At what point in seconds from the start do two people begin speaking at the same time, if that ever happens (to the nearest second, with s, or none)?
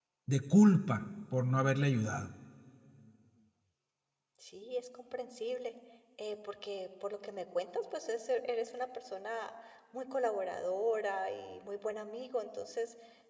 none